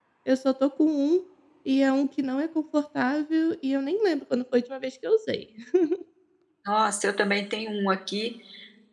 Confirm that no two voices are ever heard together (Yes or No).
Yes